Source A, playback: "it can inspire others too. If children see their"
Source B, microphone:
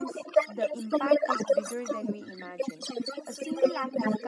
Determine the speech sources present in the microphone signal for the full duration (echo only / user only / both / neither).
both